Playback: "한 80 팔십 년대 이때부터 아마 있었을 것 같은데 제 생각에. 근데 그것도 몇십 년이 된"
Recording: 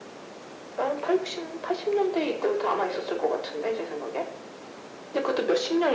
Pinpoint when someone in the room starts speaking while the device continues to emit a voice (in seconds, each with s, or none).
none